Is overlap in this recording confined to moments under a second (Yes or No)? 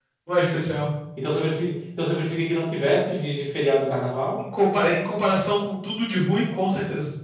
Yes